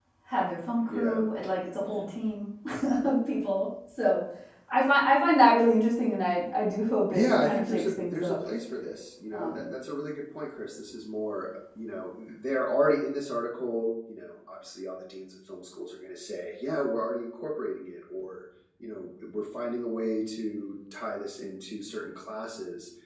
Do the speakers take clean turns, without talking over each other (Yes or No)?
No